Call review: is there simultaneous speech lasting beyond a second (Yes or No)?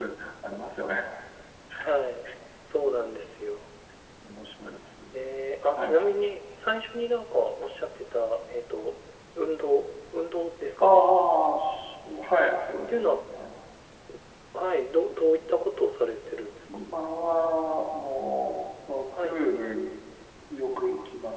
No